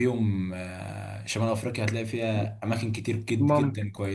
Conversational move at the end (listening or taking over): listening